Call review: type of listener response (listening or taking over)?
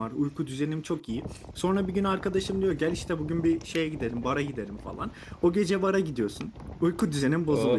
listening